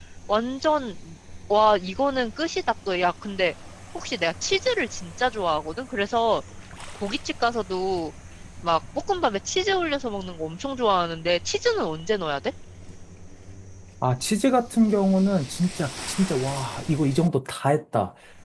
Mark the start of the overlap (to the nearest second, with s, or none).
none